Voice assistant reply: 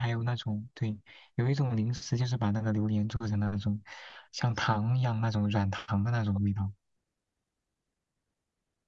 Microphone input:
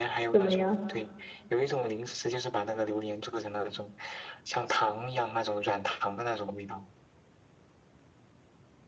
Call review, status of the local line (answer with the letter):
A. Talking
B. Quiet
A